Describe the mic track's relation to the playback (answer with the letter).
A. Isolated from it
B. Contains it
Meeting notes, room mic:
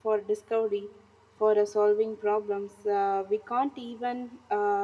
A